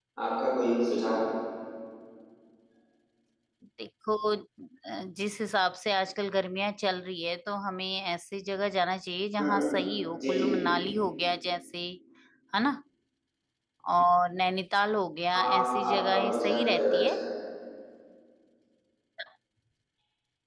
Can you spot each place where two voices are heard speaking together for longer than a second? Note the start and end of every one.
15.3-17.2

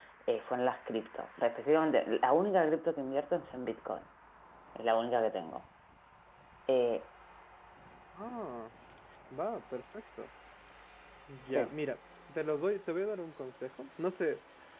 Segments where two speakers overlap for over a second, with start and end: none

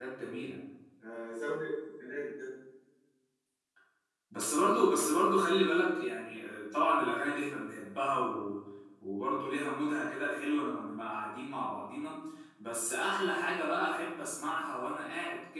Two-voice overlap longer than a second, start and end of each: none

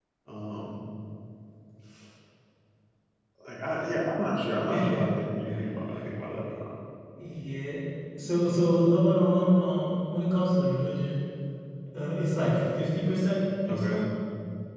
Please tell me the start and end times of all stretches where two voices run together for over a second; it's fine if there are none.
none

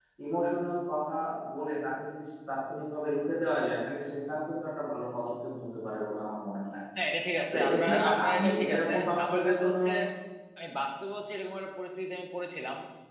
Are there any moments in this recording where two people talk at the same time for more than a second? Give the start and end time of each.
7.5-9.8

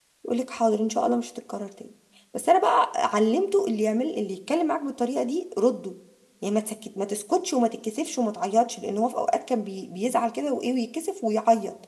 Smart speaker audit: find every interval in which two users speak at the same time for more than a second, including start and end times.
none

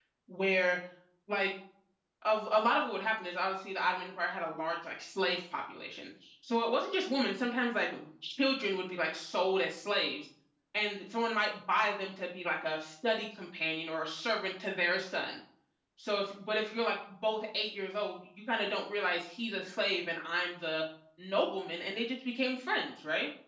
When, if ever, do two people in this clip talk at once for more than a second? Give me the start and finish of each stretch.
none

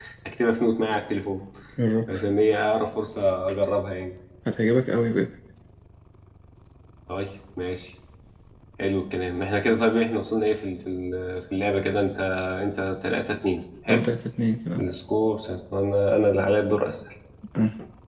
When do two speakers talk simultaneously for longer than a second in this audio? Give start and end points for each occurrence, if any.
none

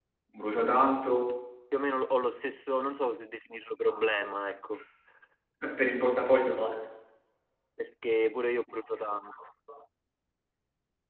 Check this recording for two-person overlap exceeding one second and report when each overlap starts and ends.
none

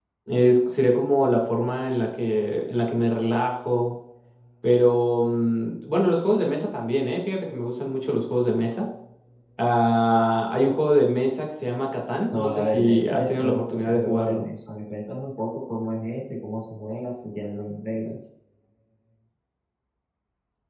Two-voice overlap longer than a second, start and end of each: 12.3-14.4

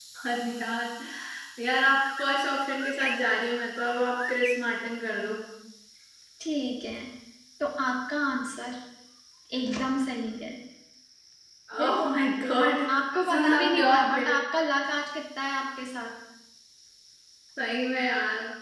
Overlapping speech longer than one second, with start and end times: 13.1-14.4

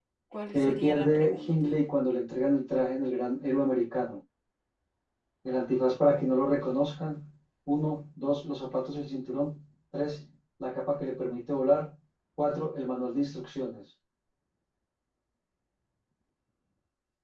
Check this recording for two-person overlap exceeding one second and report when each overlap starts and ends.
0.5-1.8

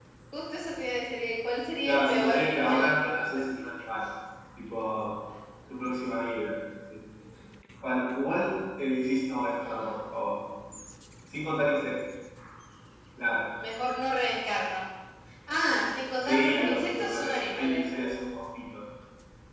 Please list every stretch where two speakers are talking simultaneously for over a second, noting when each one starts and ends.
1.9-3.7, 16.2-17.9

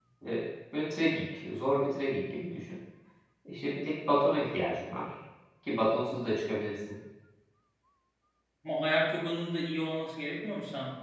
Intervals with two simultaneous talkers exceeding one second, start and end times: none

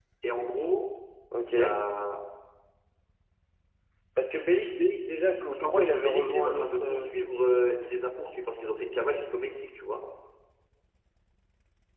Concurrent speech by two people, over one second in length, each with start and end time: 5.5-7.1

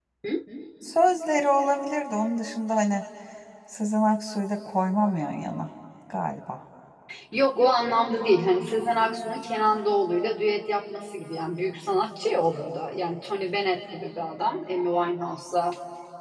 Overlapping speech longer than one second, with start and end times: none

